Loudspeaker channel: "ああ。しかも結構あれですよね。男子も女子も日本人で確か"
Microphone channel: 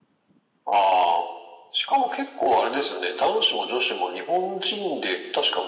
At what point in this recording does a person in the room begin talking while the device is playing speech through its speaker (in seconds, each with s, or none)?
none